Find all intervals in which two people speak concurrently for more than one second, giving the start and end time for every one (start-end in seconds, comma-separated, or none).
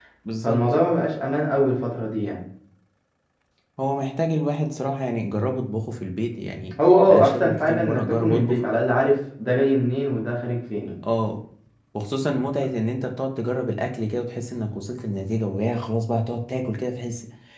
7.1-8.6